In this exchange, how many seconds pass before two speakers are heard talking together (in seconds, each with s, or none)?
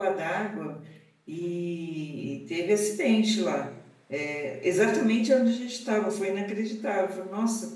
none